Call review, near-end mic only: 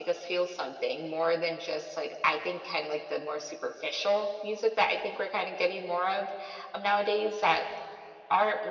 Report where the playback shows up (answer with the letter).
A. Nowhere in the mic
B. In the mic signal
B